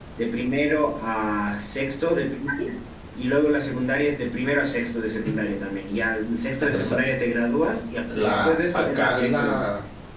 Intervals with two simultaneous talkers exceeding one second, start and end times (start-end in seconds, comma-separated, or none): 8.2-9.6